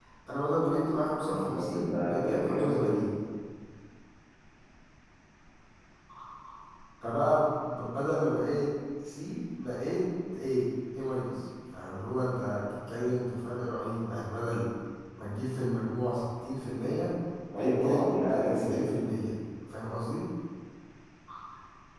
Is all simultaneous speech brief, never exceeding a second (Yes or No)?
No